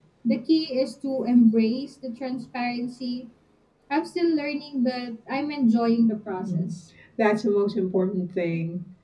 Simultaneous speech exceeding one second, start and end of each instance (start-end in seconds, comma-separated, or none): none